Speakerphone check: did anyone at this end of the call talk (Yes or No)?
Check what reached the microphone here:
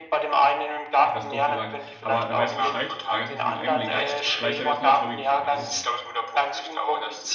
Yes